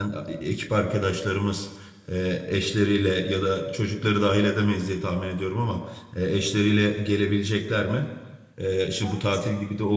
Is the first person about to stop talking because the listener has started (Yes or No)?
No